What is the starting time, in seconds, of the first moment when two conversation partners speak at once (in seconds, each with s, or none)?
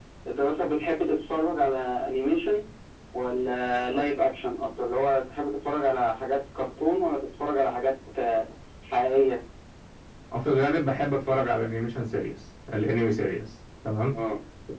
none